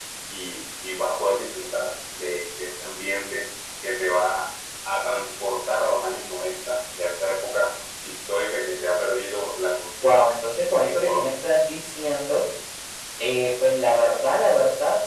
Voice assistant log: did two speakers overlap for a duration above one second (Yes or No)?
No